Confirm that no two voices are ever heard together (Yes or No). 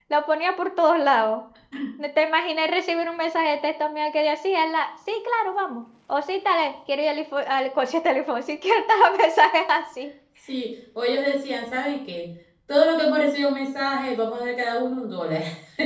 Yes